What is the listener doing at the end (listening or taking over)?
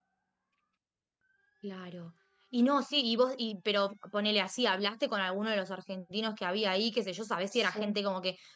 listening